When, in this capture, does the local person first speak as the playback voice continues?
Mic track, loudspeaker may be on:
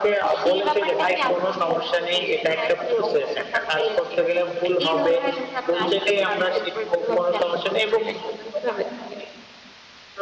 none

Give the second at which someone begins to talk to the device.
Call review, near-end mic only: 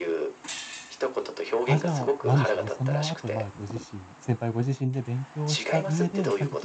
1.6 s

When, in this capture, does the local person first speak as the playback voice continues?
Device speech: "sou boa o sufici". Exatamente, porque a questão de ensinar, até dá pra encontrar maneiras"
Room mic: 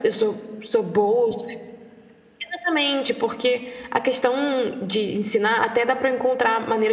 none

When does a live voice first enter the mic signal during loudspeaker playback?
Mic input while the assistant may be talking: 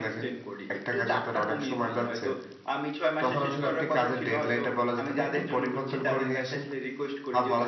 none

